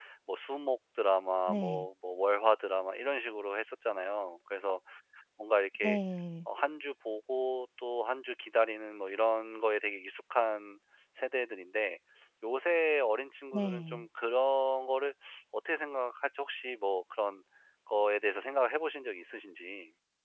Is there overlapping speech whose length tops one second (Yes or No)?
No